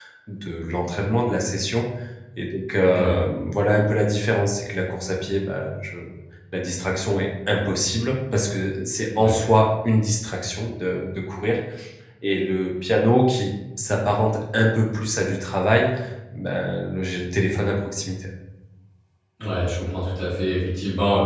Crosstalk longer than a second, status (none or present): none